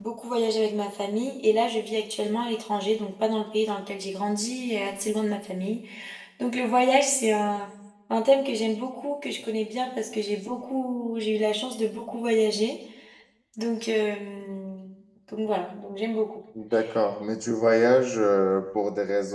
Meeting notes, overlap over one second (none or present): none